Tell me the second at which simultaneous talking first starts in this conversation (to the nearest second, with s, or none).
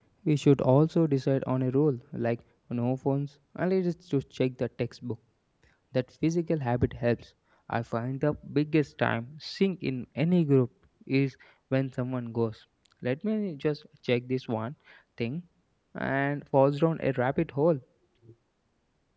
none